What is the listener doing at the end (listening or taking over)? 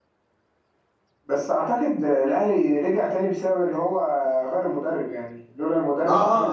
taking over